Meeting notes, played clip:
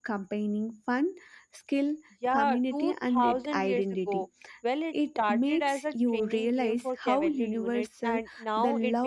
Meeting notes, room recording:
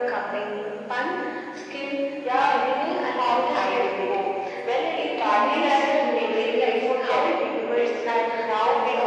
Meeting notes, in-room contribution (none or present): none